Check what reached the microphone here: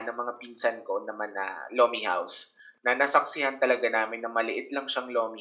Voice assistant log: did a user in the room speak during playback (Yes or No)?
No